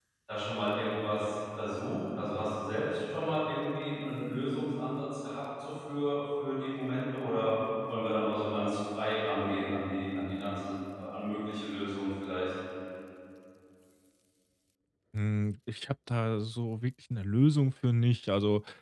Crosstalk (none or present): none